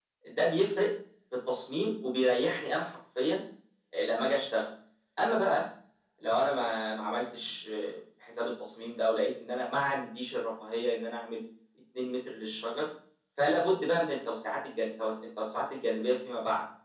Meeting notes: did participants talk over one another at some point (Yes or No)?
No